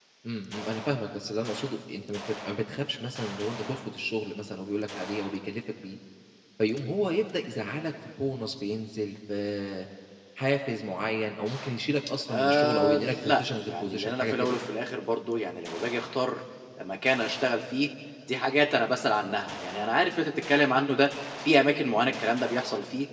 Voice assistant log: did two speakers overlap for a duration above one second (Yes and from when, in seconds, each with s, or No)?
Yes, from 12.3 s